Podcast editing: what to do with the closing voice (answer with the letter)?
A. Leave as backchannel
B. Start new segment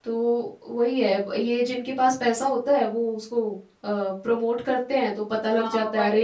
B